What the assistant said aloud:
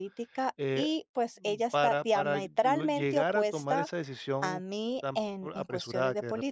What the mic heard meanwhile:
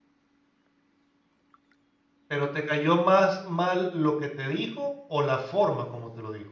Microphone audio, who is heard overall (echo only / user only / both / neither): user only